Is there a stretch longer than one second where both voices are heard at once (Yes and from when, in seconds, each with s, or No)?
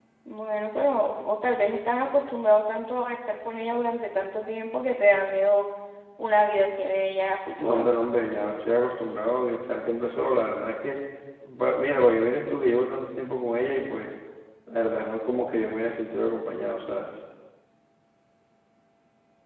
No